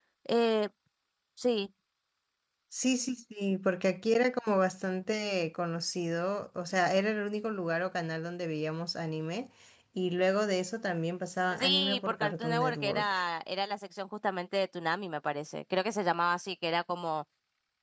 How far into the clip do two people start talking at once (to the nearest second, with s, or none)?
12 s